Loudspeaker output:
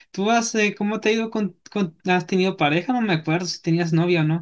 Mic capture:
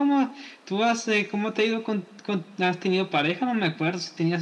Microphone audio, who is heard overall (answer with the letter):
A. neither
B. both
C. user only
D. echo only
D